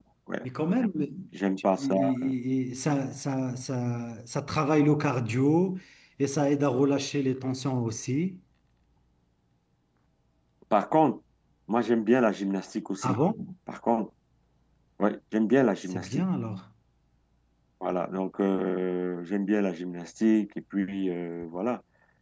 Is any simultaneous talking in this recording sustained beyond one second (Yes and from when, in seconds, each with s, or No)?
No